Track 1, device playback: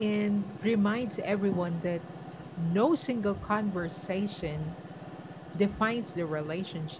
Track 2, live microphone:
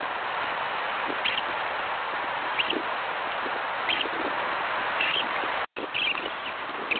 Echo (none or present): none